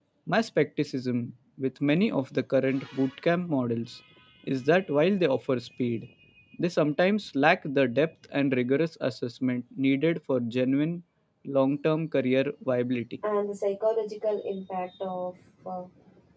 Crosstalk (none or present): none